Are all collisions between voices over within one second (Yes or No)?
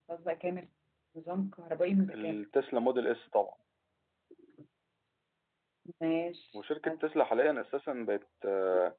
Yes